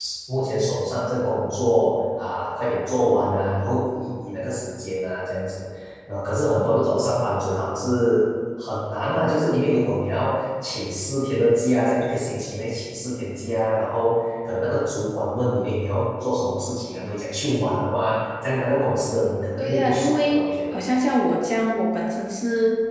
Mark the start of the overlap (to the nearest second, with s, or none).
20 s